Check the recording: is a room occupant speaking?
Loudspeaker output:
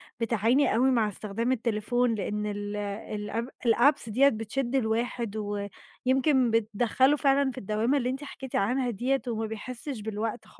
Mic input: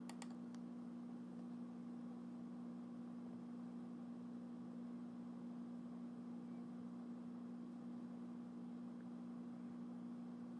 No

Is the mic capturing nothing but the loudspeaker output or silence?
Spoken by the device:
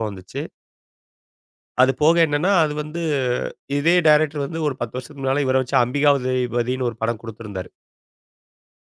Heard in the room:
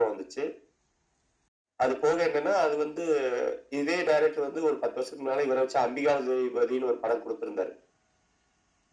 Yes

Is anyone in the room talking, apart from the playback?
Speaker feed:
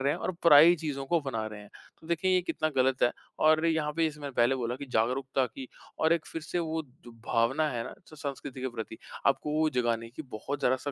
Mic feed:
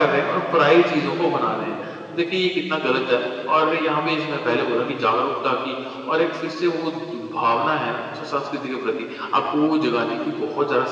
No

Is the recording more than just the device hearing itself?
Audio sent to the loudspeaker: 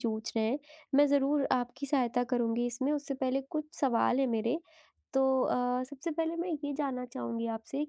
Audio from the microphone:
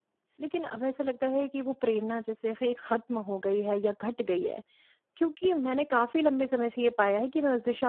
Yes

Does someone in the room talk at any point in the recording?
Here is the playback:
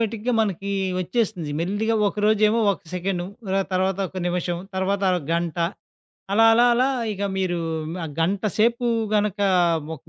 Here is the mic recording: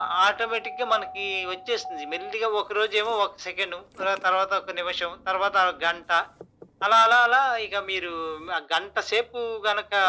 No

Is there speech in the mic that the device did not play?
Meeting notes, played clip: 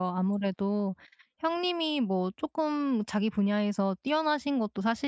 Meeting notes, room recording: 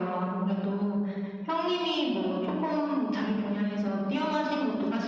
No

